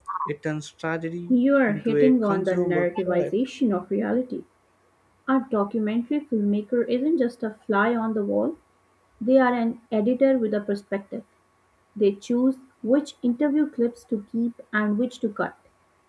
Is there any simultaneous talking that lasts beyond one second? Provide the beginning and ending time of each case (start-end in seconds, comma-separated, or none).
1.7-3.3